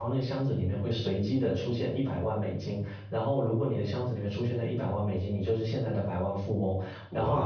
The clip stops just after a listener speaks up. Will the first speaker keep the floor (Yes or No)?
Yes